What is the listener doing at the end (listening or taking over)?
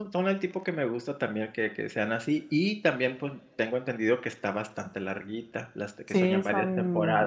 taking over